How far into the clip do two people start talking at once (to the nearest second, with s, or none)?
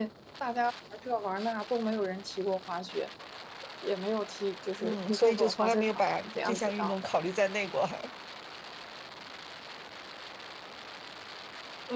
5 s